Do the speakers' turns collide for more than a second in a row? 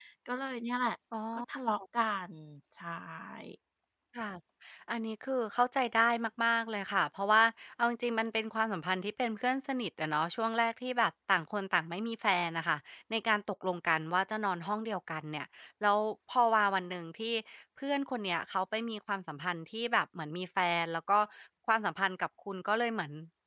No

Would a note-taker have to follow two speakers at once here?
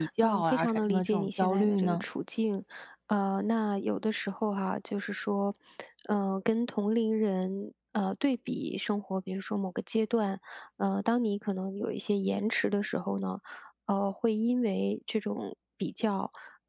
Yes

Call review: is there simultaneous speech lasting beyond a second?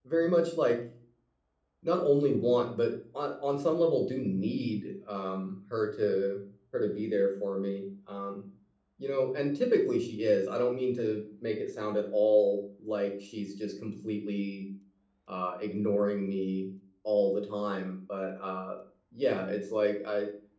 No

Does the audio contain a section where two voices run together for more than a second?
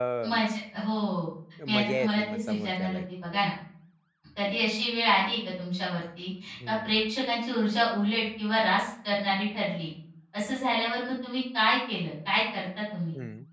Yes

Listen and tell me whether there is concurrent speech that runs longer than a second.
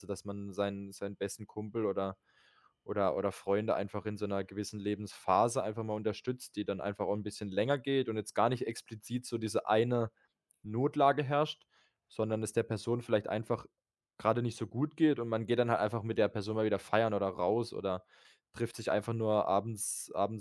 No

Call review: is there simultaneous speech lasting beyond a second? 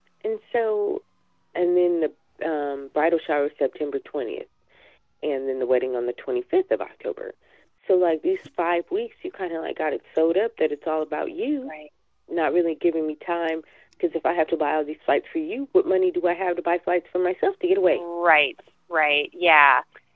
No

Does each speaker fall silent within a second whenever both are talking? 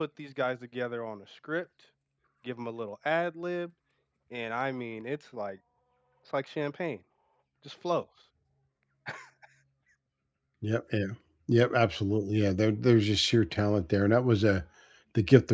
Yes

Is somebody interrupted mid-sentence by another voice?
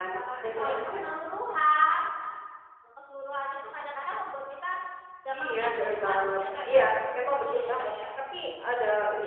Yes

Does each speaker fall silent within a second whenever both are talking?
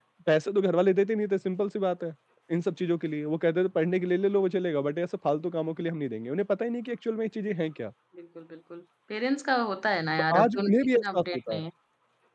No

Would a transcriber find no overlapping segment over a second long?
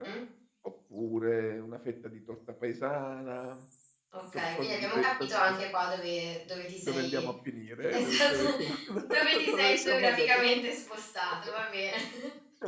No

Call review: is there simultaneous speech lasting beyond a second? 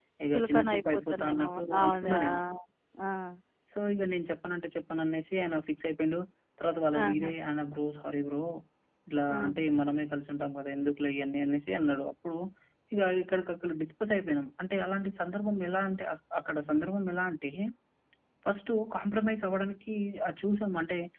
Yes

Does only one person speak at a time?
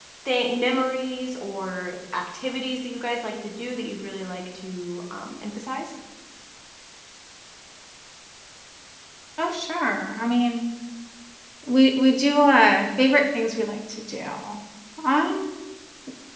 Yes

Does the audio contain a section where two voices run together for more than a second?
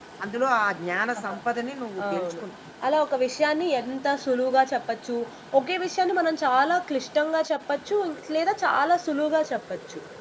No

